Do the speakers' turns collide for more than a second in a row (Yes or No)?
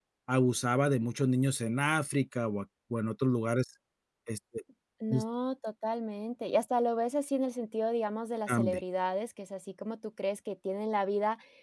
No